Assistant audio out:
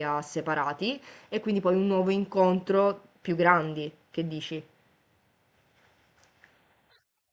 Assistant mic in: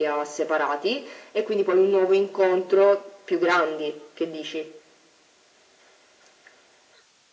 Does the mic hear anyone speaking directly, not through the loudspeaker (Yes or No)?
No